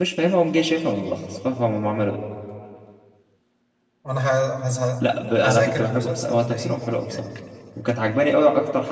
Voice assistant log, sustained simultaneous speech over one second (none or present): present